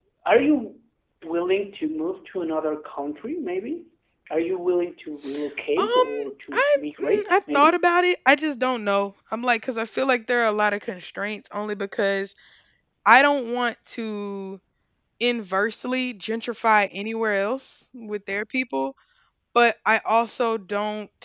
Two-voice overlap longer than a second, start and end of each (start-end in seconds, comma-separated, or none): 6.5-7.8